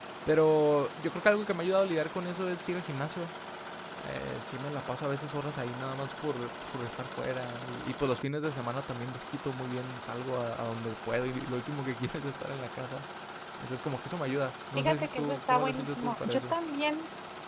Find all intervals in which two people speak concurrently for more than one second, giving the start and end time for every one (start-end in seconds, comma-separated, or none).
14.8-16.5